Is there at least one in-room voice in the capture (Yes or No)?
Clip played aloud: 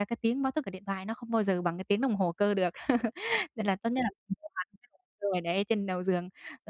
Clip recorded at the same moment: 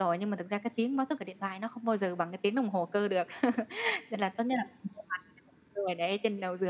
No